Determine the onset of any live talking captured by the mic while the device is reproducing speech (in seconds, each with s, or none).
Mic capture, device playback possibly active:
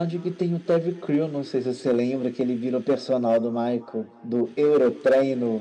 none